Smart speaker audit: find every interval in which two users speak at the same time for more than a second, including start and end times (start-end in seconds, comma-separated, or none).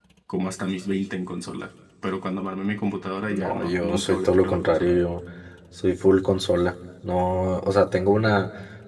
3.2-5.0